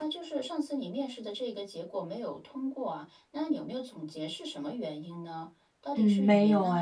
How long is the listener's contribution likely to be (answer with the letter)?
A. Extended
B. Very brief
A